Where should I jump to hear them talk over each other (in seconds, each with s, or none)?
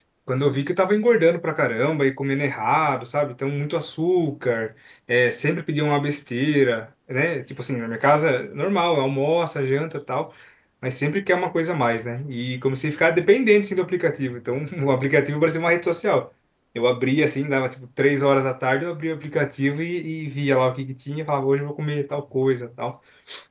none